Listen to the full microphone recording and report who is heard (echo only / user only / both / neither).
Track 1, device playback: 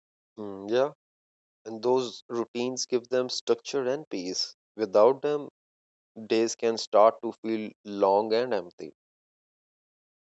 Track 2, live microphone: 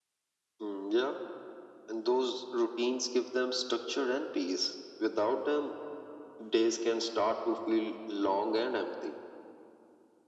echo only